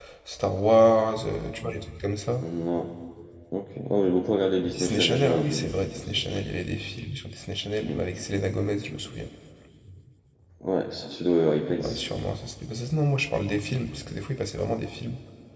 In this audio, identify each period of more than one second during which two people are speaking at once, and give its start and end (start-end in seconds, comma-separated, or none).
4.7-6.2